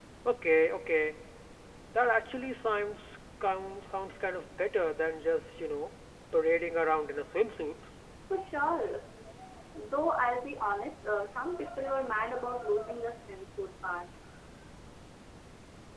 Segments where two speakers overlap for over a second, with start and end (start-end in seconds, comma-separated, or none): none